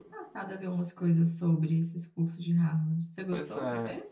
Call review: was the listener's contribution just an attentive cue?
No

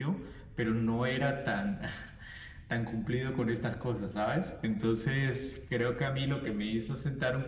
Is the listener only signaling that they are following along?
Yes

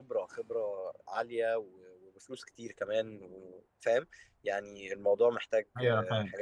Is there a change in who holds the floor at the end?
Yes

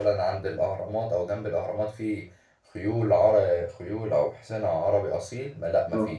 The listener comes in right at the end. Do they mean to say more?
No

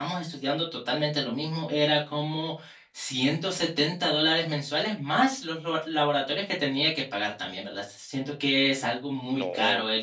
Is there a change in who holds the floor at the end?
Yes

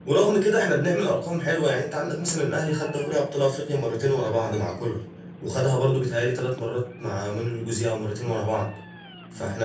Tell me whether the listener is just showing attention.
Yes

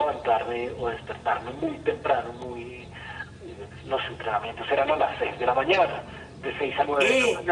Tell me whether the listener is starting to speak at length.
Yes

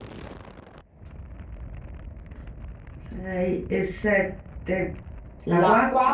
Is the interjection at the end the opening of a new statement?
Yes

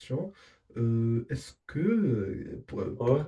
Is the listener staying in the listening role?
Yes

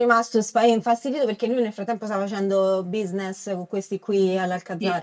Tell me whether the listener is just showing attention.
No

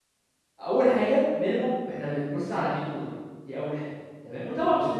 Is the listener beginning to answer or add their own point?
No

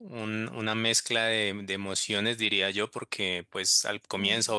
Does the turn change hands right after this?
No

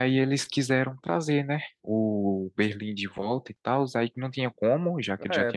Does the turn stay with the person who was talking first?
No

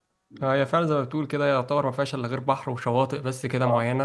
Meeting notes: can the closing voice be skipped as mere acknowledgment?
No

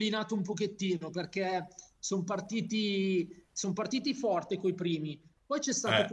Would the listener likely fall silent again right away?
Yes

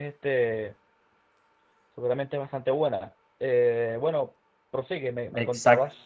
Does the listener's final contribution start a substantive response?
Yes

